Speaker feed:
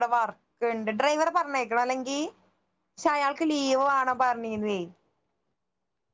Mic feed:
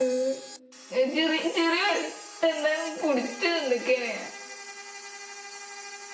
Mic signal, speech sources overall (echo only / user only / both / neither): user only